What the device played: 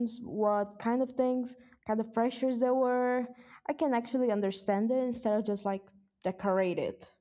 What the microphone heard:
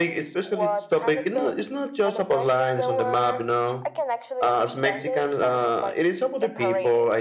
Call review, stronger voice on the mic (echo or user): user